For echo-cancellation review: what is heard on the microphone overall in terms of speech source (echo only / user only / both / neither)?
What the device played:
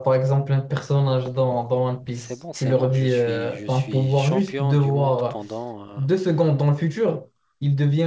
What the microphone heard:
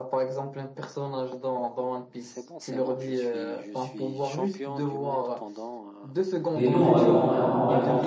both